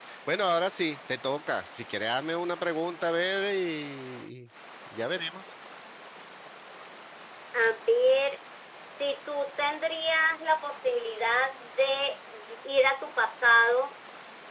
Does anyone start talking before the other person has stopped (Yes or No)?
No